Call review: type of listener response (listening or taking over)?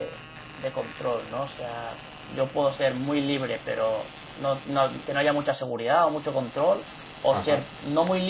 listening